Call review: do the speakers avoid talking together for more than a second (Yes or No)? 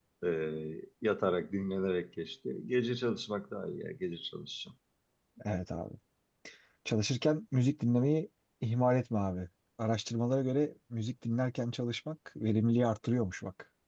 Yes